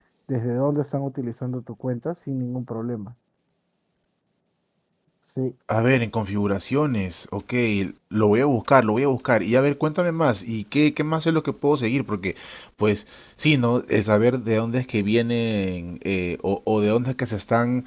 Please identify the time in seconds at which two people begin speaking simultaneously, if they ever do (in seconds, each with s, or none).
none